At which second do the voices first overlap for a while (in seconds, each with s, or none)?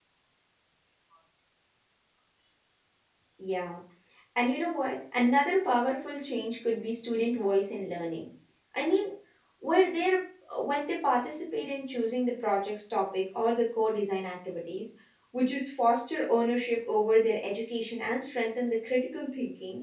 none